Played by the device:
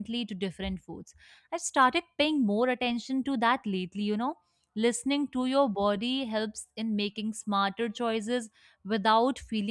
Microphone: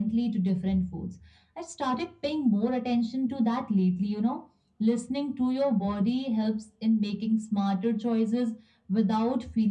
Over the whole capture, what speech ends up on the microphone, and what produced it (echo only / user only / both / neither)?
echo only